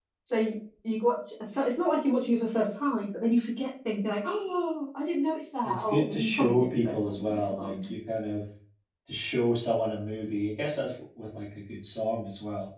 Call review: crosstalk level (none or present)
present